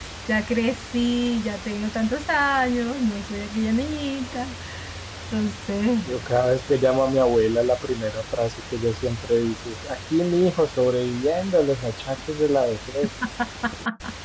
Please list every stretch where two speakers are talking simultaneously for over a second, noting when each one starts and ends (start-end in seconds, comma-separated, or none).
none